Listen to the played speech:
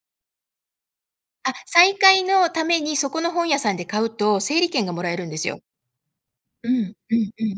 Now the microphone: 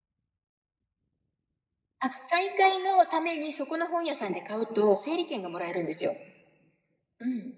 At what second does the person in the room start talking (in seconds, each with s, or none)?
none